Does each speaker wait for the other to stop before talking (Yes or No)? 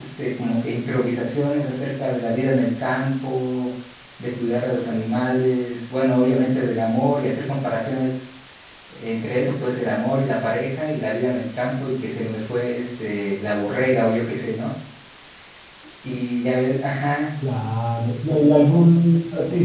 Yes